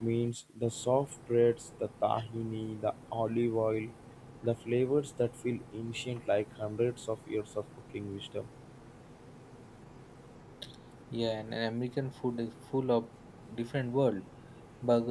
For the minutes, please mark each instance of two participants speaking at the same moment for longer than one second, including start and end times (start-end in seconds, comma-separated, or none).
none